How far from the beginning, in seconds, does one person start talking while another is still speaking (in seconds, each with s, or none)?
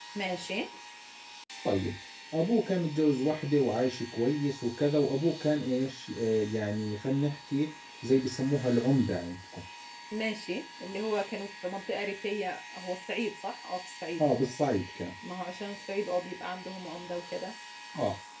none